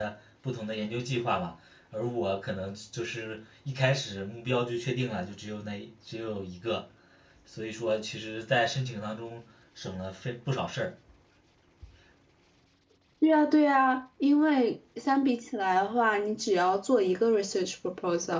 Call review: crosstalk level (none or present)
none